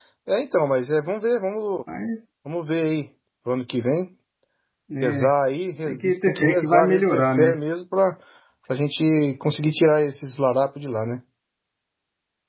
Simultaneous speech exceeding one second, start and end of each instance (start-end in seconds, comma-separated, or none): 5.9-7.6